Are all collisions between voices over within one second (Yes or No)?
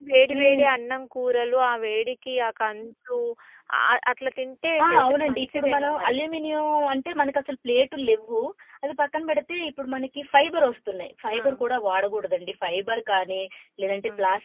No